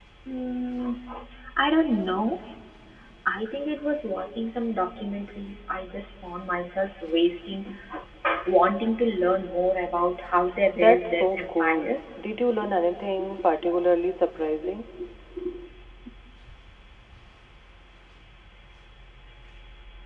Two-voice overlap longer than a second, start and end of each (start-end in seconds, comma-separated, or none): 10.8-12.0